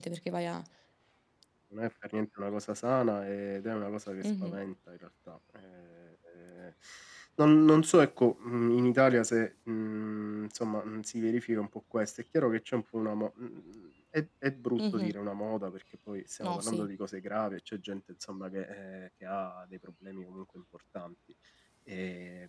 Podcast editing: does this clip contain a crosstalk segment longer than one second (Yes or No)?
No